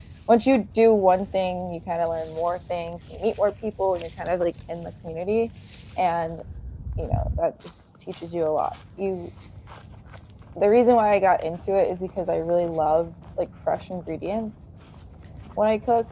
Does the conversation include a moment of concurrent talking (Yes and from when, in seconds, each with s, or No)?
No